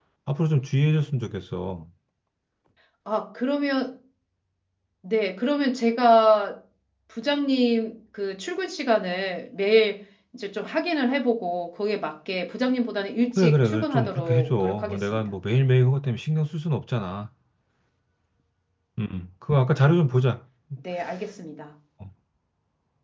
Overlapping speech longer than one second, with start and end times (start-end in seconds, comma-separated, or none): 13.4-15.2